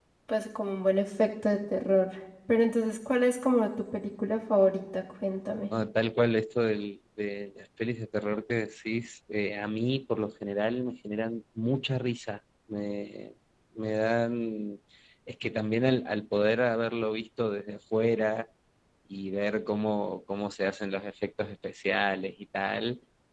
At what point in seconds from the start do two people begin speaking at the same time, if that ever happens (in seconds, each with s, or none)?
none